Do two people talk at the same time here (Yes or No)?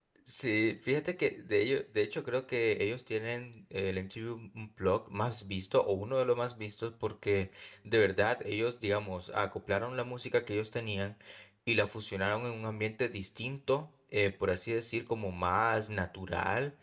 No